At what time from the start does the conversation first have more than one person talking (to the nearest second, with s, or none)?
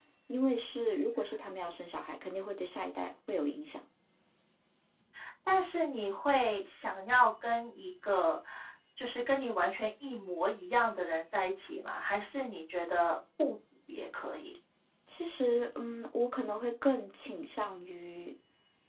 none